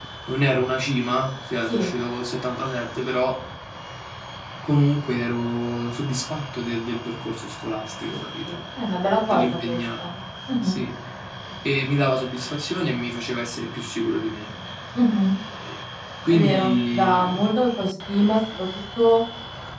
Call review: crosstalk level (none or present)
present